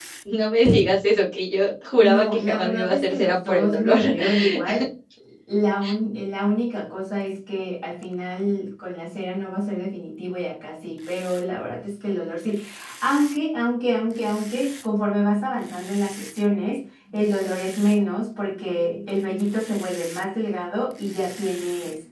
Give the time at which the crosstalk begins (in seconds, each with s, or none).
2.0 s